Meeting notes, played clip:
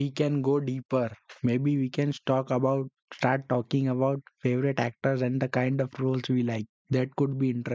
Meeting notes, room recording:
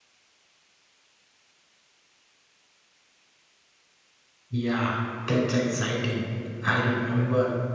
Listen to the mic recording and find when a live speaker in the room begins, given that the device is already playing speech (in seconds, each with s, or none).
4.5 s